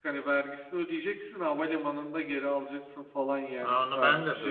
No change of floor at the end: No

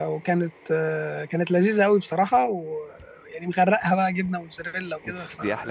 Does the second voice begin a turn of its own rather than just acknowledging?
Yes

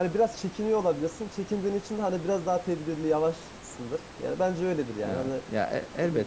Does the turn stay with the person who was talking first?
No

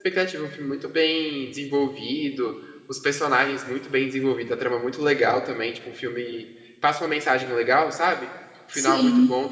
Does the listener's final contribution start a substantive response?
No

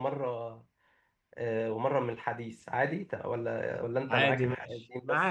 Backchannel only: No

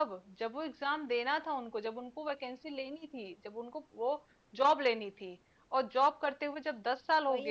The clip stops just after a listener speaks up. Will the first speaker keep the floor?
Yes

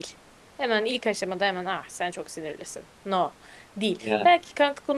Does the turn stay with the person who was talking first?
Yes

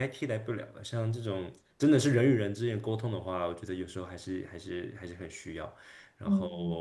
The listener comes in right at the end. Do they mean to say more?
No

